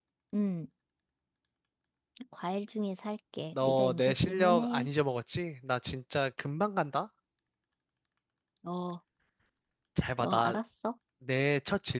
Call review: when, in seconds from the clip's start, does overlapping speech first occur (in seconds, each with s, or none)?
3.5 s